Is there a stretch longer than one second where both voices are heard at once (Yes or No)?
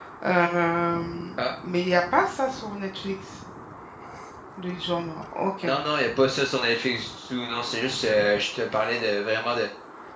No